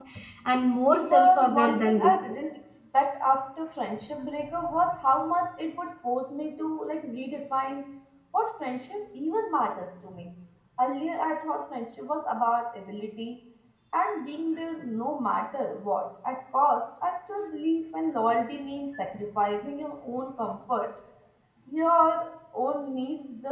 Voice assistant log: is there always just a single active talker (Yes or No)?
No